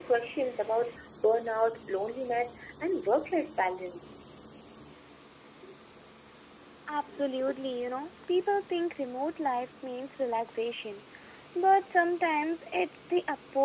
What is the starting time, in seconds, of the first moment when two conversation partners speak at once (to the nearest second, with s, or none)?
none